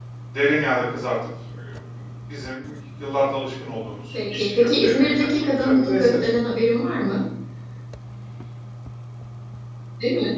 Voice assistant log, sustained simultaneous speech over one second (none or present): present